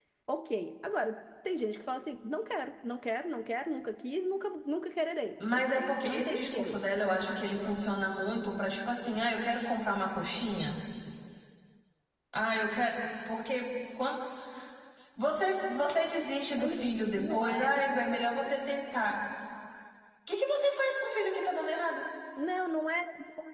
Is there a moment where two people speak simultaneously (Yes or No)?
Yes